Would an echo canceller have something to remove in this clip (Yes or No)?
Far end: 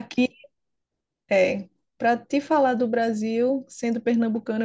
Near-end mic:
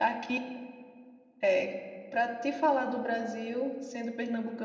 Yes